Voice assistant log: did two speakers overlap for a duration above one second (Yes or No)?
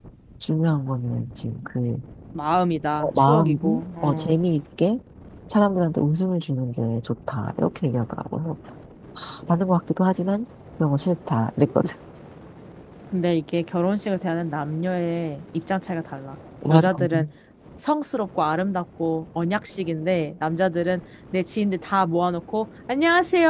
Yes